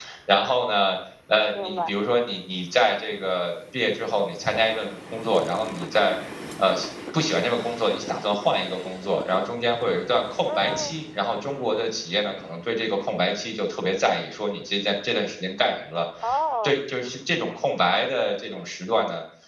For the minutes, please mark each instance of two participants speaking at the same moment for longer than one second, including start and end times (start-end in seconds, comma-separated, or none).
none